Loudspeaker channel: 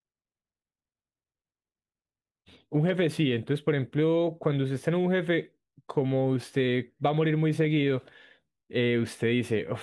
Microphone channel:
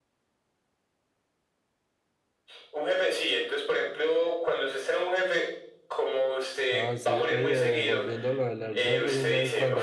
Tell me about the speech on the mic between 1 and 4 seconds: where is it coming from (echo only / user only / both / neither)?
echo only